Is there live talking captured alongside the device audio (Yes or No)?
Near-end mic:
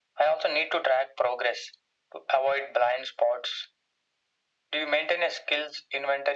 No